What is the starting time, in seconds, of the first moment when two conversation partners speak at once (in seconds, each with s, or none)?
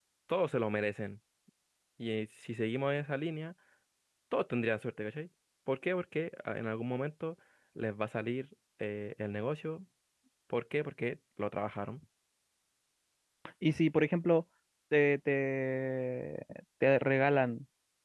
none